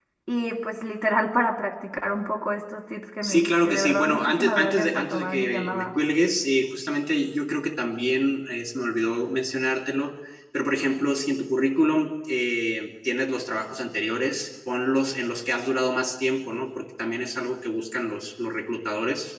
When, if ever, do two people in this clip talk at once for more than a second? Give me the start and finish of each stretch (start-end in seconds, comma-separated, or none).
3.2-5.9